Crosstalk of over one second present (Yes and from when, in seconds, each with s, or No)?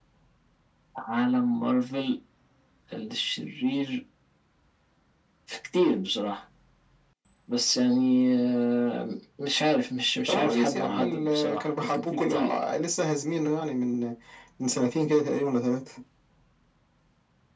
Yes, from 10.3 s